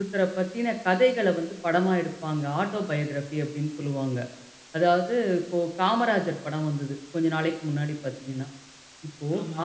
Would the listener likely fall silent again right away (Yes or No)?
Yes